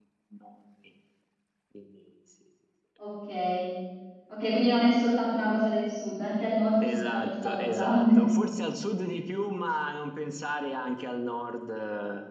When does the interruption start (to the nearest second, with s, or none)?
7 s